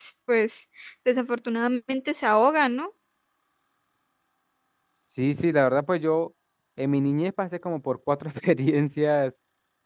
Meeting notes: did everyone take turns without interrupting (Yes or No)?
Yes